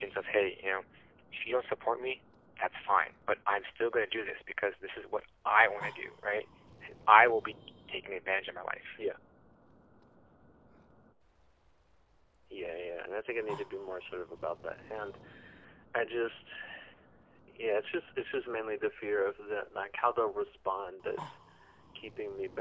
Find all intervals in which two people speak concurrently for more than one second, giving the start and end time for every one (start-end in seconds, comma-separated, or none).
none